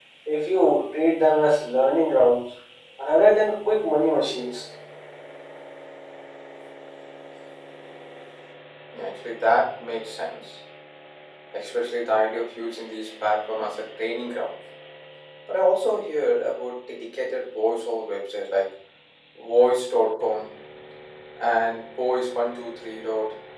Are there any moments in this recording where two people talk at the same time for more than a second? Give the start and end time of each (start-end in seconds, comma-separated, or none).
none